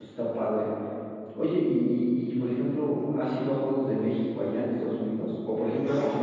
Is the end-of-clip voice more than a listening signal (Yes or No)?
No